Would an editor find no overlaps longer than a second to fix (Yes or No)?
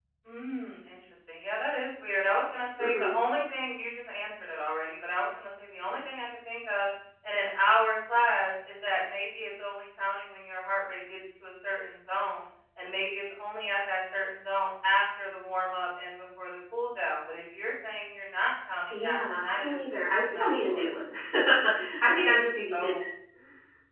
No